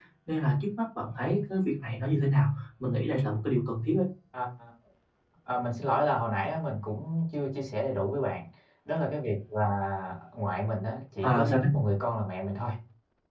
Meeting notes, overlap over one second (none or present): none